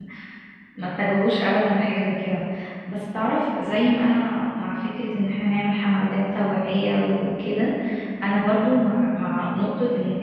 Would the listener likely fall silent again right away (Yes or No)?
Yes